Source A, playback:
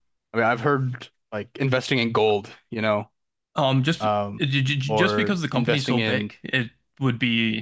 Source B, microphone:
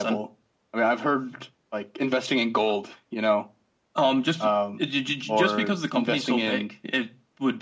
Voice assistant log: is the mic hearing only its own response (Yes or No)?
Yes